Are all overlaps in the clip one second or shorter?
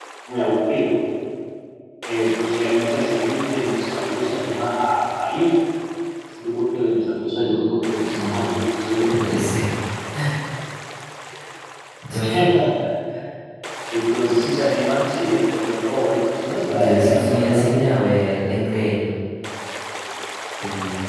No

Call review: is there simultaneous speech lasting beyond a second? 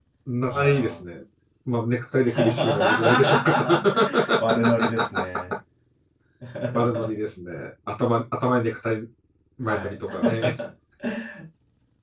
Yes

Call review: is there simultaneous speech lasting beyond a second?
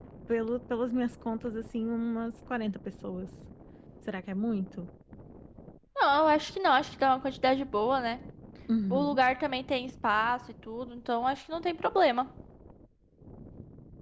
No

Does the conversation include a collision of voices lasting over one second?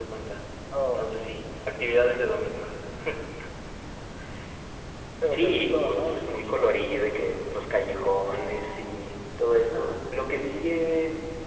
Yes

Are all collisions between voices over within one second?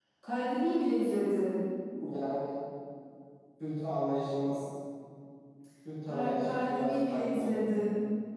No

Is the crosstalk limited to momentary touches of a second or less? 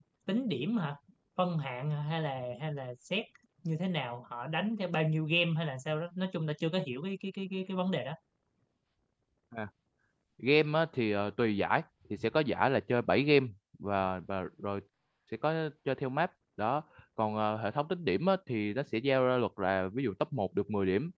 Yes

